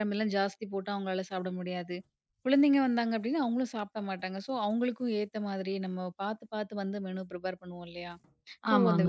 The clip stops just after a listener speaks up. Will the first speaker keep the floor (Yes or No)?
Yes